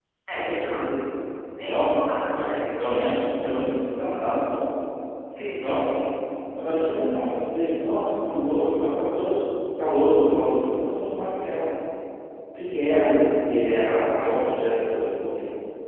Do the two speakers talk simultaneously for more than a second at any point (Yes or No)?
No